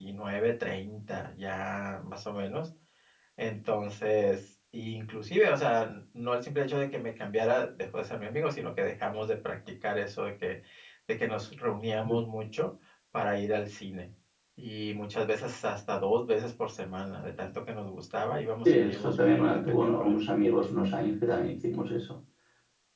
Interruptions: present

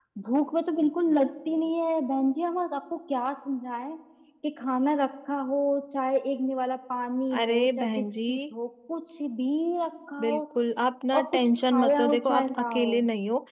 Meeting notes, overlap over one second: present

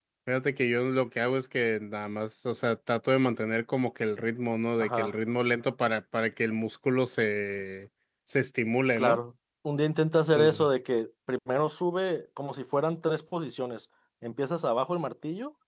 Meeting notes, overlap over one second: none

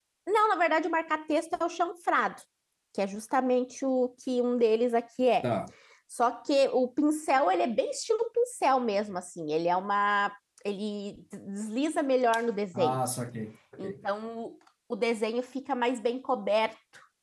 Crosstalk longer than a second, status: none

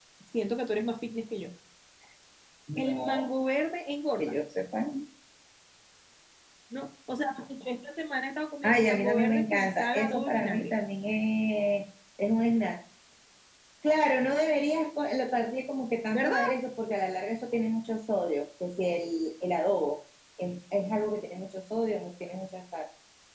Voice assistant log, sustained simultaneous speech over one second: present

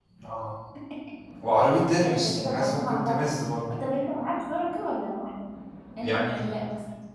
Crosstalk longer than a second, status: present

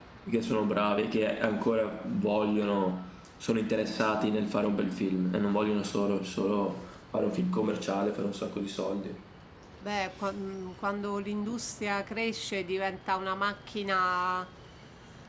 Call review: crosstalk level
none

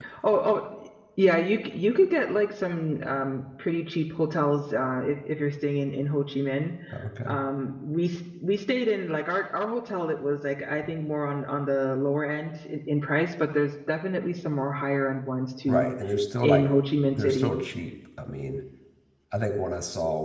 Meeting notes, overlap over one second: none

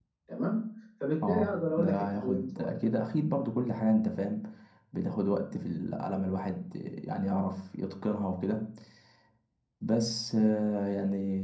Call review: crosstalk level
present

